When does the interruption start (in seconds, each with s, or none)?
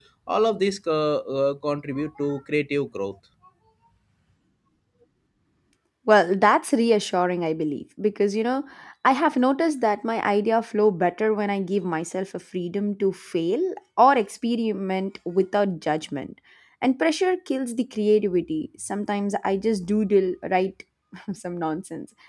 none